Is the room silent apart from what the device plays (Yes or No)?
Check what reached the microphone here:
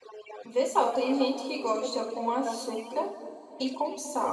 No